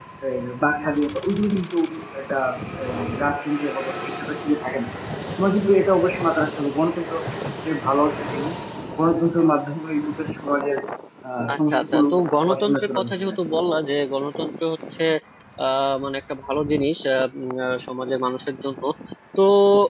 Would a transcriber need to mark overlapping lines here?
Yes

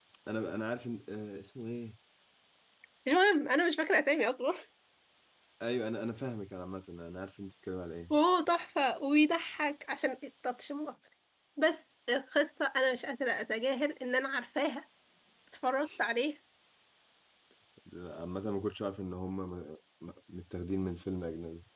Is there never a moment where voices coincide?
Yes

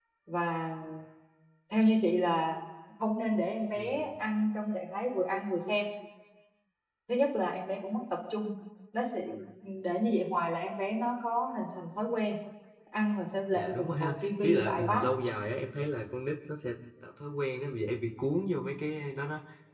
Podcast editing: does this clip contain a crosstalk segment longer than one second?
Yes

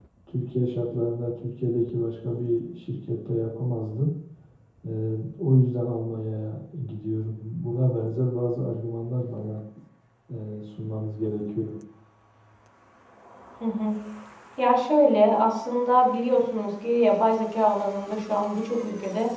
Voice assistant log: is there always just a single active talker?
Yes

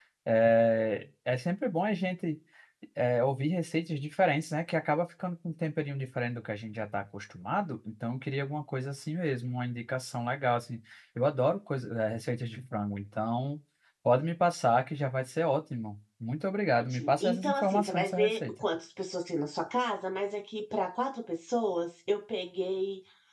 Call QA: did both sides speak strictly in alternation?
No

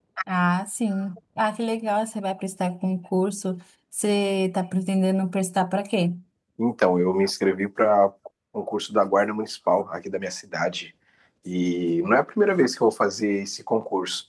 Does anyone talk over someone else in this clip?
No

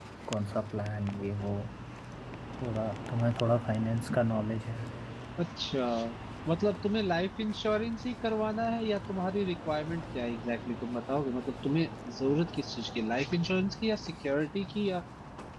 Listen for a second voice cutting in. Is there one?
No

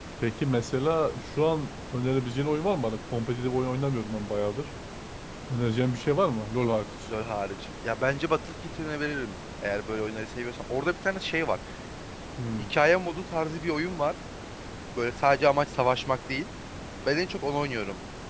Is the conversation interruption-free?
Yes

